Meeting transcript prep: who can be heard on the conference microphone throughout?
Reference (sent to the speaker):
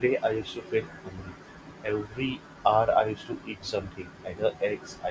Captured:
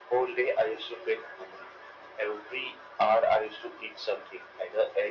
echo only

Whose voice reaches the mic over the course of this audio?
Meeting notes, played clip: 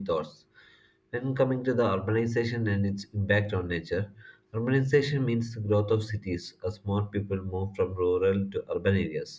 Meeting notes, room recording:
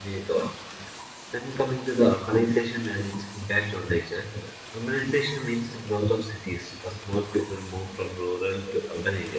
echo only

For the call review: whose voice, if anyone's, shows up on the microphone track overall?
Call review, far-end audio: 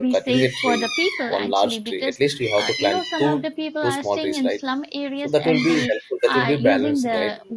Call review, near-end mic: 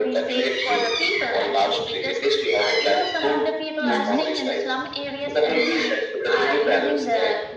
both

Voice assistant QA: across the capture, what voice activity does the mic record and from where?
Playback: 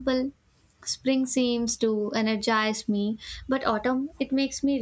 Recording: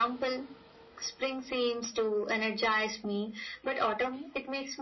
echo only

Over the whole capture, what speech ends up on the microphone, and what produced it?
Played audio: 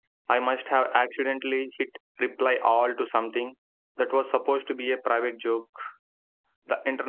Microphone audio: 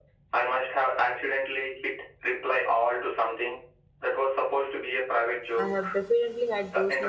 both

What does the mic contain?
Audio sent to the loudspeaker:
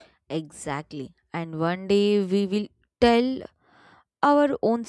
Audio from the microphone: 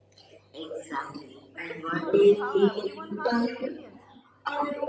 both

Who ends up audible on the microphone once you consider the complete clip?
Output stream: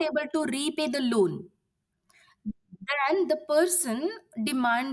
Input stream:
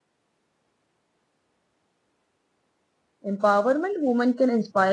user only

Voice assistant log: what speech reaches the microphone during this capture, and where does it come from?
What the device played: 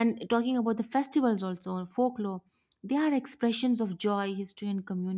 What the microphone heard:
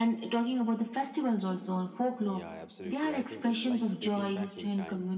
both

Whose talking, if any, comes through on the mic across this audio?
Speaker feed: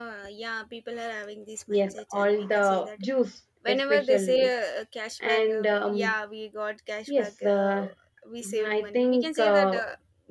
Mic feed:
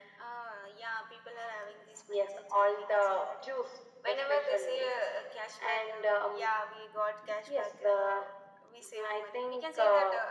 echo only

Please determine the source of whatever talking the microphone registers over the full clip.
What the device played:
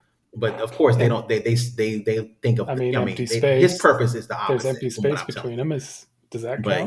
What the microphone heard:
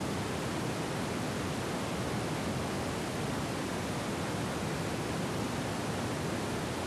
neither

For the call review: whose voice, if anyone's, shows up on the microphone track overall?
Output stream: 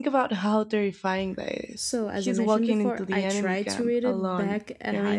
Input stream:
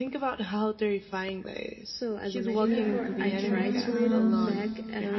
both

